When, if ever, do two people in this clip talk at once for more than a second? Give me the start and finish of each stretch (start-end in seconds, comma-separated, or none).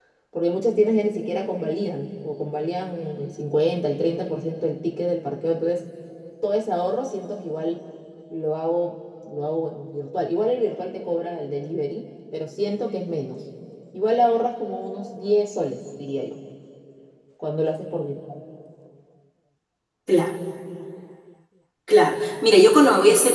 none